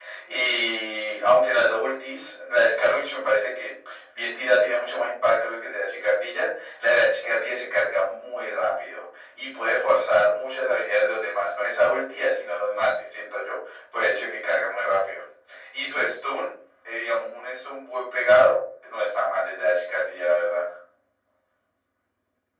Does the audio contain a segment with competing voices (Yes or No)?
No